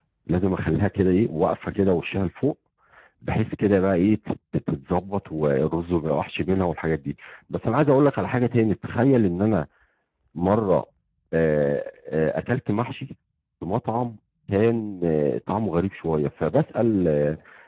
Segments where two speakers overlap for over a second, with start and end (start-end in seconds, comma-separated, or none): none